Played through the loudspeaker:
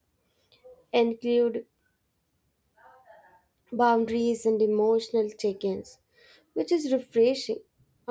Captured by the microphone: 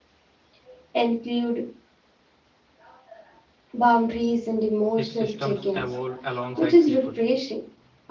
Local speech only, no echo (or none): if systems evolve alongside people.